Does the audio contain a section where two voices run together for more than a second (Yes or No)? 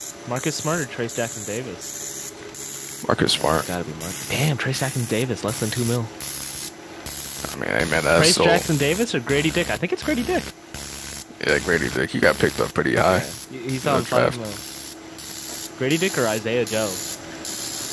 No